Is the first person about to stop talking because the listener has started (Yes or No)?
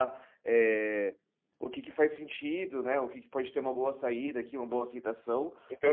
Yes